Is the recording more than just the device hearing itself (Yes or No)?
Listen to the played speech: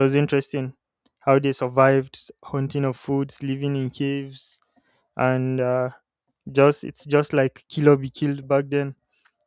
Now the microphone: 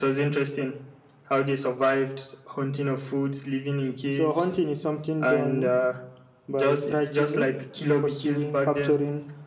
Yes